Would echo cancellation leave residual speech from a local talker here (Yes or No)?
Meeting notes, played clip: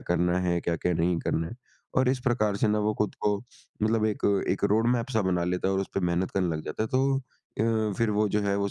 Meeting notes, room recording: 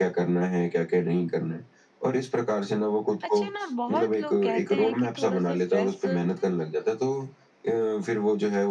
Yes